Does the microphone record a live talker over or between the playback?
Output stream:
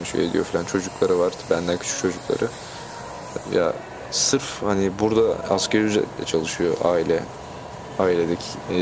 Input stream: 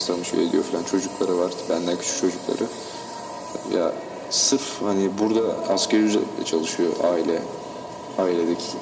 No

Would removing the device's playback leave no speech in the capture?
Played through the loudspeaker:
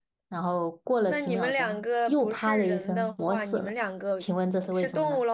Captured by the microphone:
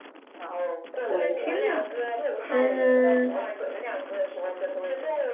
No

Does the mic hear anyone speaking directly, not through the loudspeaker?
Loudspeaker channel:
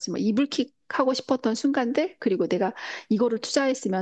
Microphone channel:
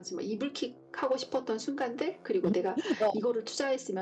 Yes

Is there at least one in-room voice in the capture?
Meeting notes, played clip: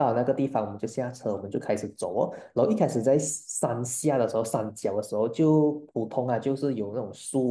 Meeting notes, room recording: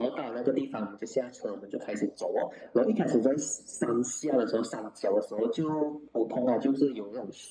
No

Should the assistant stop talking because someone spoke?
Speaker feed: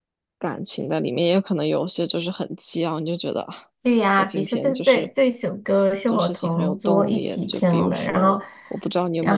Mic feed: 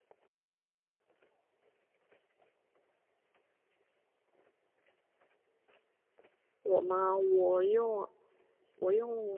Yes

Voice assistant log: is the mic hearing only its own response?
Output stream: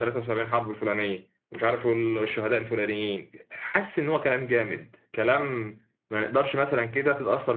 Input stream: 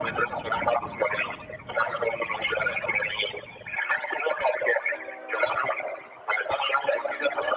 Yes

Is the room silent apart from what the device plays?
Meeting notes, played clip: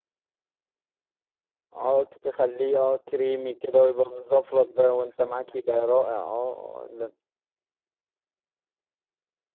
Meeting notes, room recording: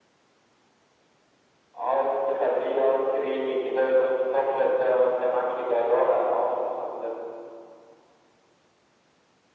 Yes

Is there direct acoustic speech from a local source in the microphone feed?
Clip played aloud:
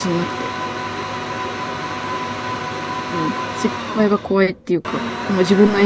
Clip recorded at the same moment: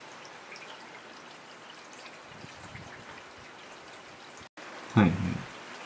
Yes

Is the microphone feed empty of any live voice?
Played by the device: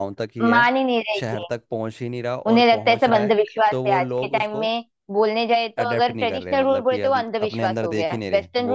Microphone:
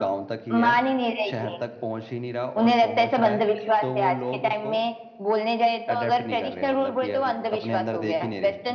Yes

